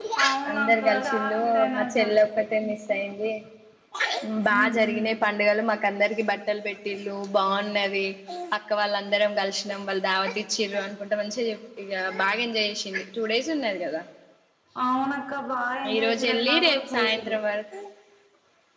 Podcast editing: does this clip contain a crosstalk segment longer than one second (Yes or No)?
Yes